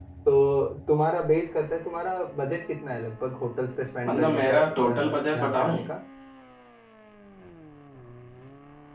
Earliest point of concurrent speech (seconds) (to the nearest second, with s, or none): 4 s